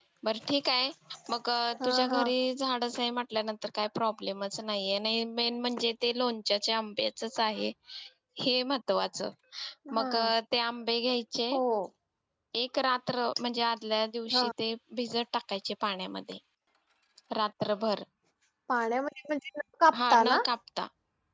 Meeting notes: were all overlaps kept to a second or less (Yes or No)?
Yes